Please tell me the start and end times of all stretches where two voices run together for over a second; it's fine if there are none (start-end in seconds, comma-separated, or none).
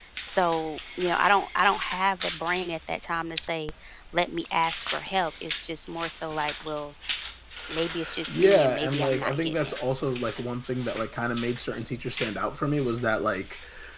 8.3-9.8